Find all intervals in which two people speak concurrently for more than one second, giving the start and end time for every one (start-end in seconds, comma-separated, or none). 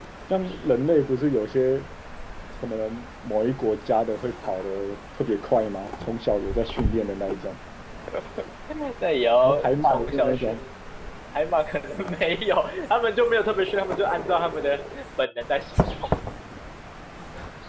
9.4-10.6